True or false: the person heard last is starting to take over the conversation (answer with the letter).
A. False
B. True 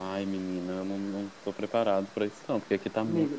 B